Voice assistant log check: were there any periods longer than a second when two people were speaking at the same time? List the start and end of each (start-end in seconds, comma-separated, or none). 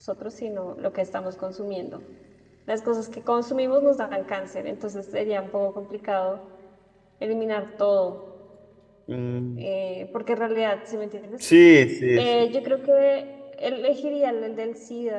none